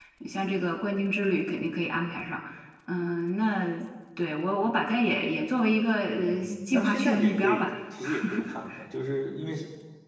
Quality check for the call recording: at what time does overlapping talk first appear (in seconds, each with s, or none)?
6.1 s